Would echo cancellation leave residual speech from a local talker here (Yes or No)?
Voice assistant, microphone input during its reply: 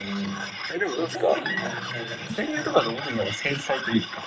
Yes